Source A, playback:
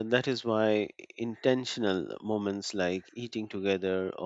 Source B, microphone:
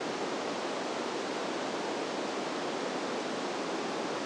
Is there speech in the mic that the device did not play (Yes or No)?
No